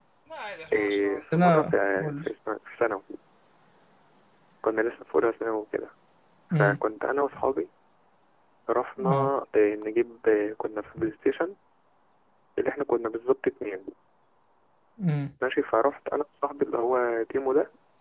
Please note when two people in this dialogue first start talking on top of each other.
0.7 s

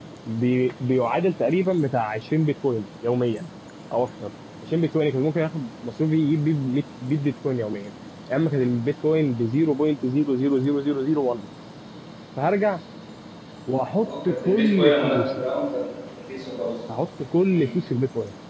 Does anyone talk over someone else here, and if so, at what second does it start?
14.0 s

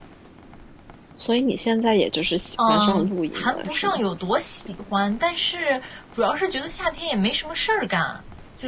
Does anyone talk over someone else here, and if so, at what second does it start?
2.6 s

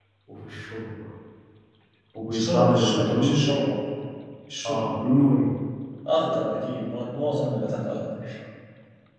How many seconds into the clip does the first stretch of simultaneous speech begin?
2.3 s

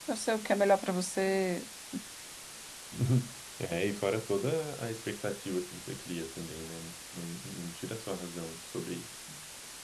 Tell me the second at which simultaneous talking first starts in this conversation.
none

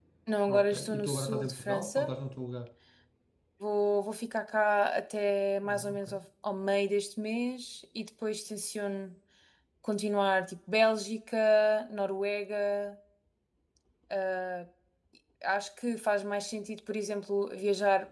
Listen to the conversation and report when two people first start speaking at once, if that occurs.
0.6 s

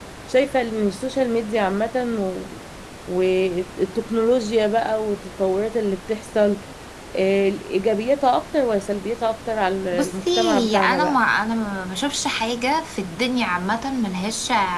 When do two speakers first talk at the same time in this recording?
9.9 s

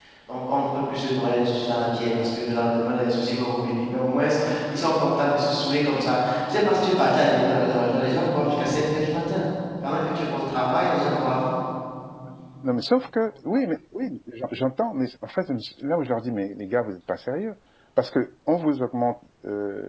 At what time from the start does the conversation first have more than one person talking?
none

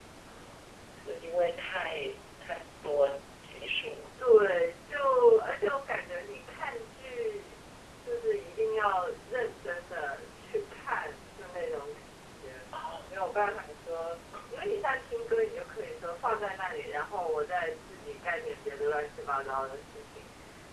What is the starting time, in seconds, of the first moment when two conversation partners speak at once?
none

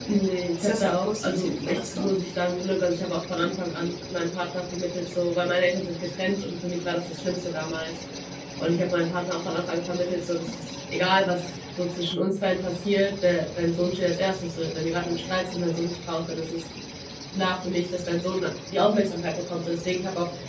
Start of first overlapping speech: 0.6 s

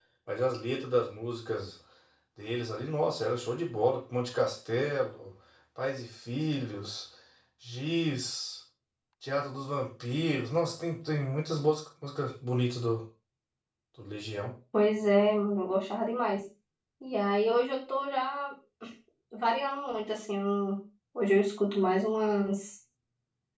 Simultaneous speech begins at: none

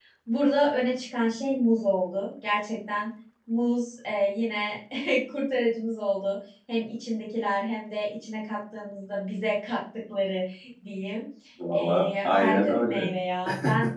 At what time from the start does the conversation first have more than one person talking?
11.7 s

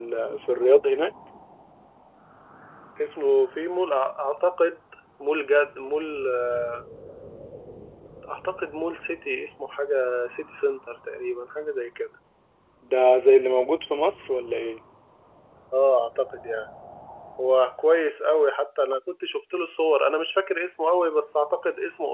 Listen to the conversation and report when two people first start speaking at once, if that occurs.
none

